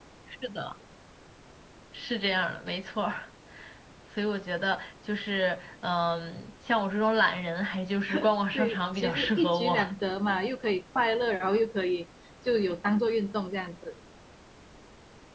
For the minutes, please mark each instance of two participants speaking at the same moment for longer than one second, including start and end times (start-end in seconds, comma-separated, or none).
8.5-9.8